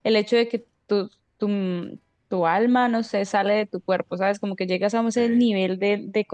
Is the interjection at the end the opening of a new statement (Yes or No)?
No